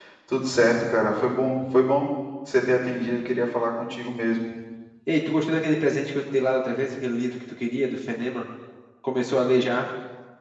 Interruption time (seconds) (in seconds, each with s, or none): none